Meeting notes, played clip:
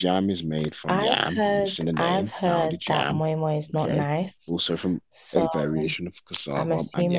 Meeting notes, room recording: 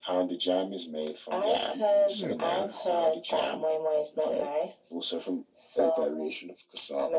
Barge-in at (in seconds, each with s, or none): 2.1 s